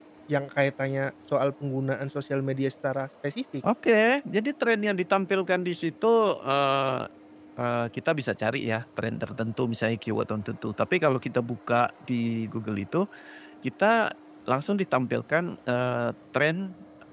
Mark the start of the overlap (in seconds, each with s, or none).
none